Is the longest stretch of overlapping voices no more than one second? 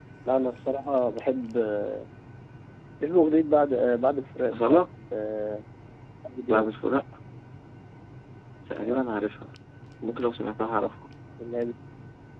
Yes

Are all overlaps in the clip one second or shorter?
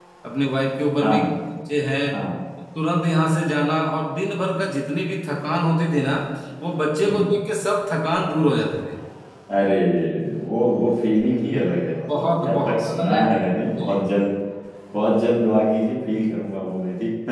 No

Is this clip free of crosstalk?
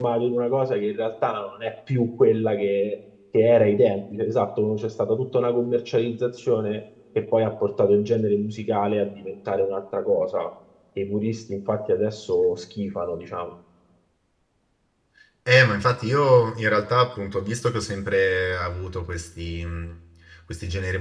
Yes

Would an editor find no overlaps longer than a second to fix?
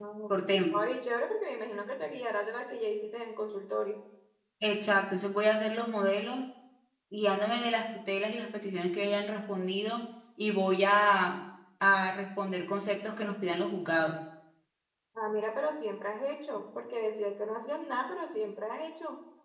Yes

